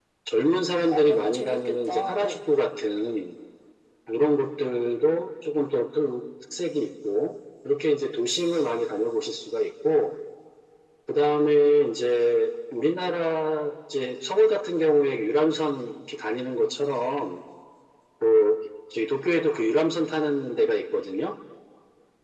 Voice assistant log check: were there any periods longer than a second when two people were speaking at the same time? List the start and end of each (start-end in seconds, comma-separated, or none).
0.9-2.4